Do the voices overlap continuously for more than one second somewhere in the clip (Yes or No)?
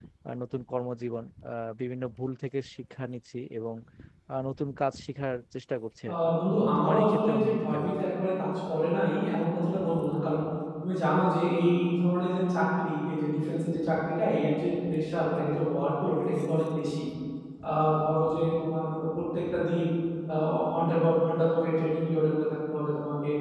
Yes